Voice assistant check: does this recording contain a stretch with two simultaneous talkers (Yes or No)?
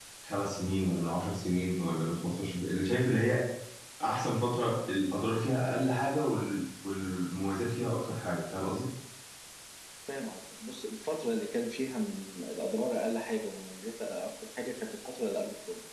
No